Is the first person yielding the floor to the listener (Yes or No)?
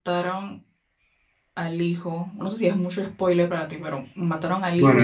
Yes